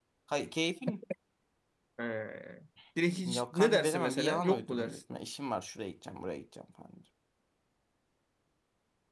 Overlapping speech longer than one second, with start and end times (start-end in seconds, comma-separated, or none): 3.3-5.0